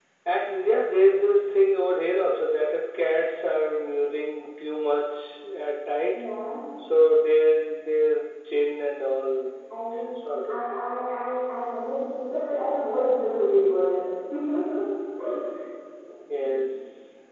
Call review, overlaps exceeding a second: none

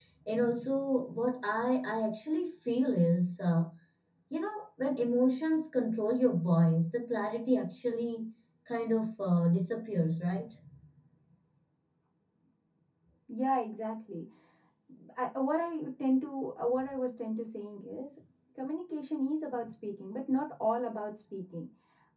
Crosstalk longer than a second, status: none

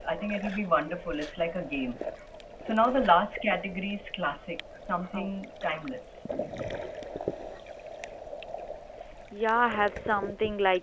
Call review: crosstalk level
none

